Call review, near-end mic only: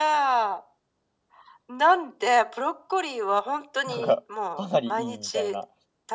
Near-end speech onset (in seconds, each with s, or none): 3.9 s